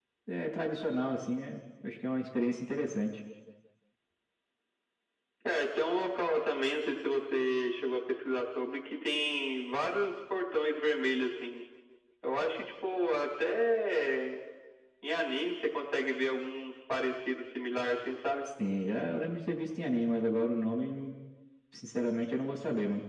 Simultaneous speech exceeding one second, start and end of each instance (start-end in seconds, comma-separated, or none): none